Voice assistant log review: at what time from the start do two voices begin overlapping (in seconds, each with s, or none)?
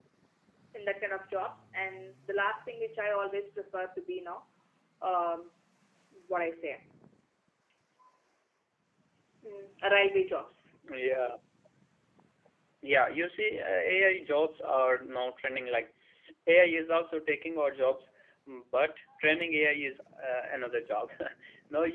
none